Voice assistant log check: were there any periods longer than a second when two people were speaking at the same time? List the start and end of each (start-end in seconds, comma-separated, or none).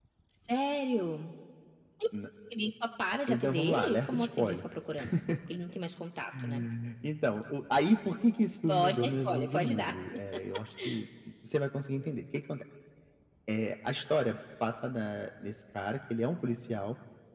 3.3-4.6, 8.7-9.9